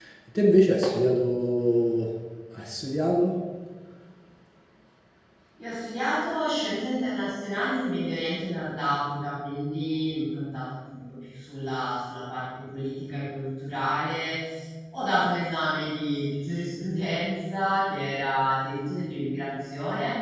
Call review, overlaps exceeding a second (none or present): none